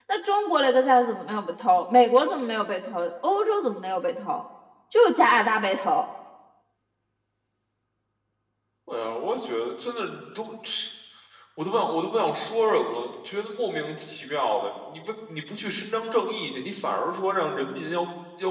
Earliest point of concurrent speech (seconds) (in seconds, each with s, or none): none